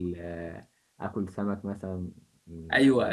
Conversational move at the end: taking over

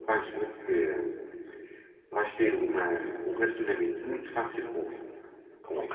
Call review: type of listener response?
taking over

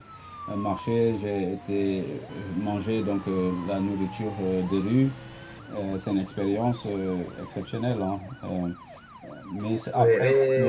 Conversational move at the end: taking over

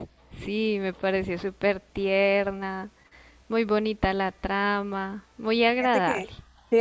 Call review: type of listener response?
taking over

